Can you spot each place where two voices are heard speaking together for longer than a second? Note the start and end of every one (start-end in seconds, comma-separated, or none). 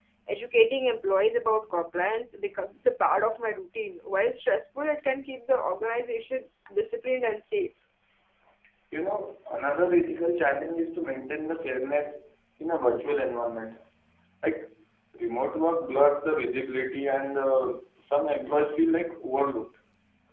none